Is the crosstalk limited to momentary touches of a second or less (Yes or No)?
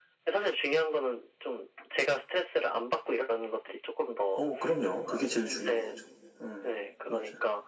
Yes